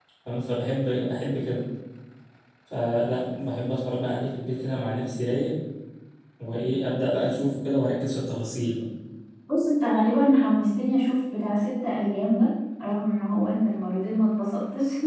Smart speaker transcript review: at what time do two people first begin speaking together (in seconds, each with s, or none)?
none